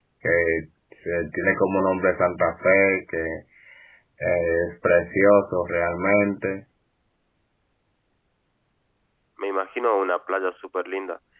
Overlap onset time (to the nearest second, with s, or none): none